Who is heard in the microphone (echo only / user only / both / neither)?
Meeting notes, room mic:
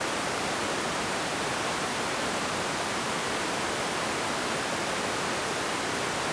neither